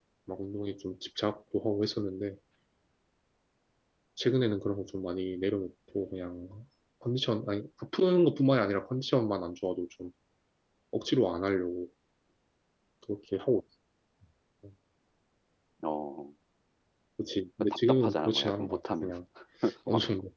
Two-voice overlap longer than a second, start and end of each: 17.6-19.1

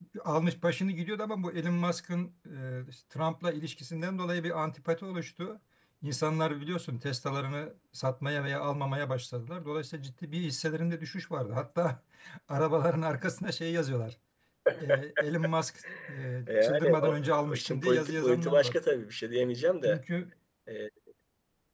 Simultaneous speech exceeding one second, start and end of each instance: 16.5-18.8

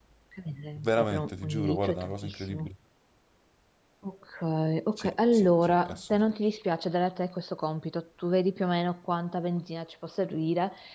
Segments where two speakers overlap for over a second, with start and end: 0.8-2.7, 5.0-6.2

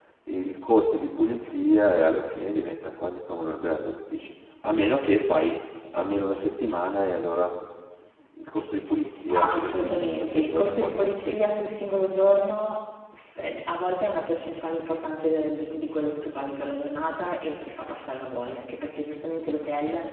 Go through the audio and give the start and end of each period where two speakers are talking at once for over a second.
9.3-11.4

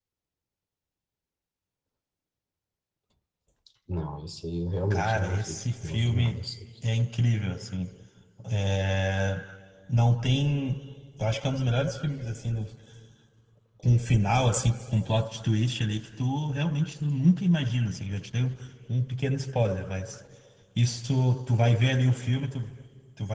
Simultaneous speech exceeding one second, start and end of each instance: 4.9-6.3

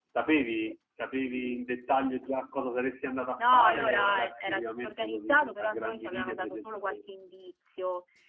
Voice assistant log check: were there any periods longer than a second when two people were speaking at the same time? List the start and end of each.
3.4-7.0

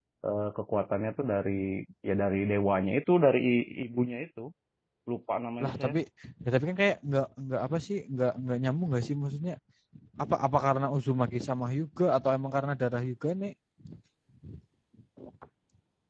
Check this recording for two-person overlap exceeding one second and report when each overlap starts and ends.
none

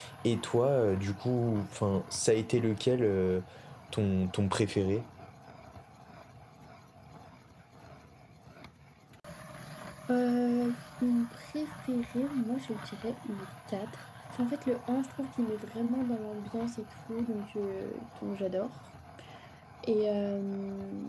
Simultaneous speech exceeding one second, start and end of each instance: none

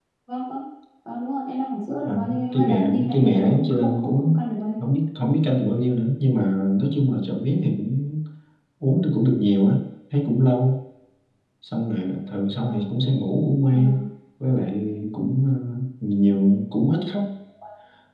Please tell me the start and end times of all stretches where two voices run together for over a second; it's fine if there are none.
2.0-4.3

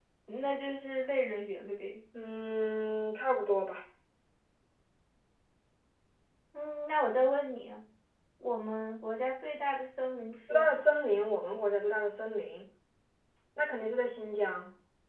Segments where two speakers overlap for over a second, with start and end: none

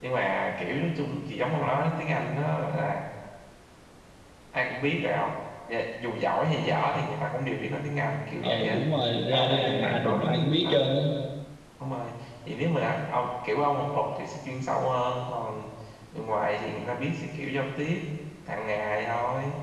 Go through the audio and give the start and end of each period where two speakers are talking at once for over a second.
9.3-10.8

